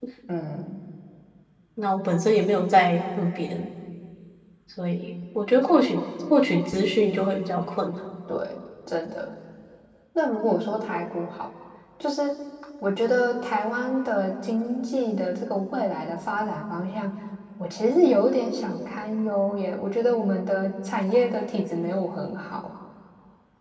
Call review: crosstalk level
none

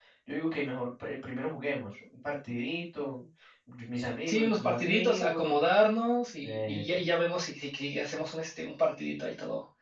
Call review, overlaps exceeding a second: present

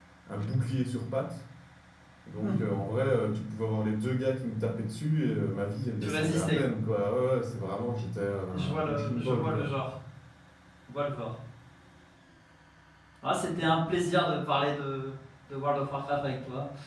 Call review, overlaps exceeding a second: present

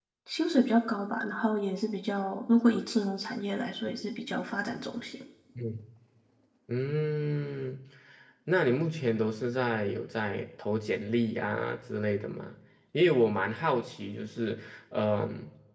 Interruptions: none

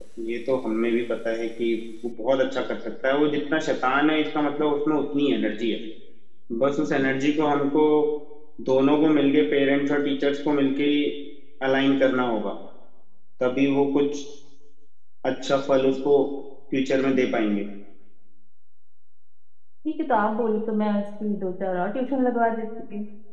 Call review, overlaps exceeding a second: none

